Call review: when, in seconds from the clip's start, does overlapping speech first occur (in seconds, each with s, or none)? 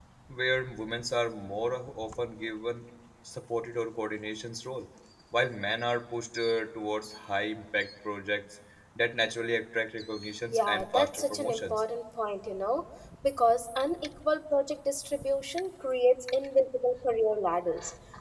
10.5 s